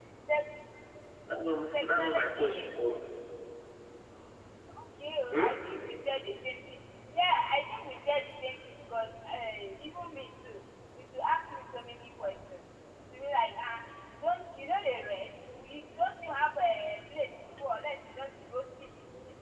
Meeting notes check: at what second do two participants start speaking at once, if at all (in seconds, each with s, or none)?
1.7 s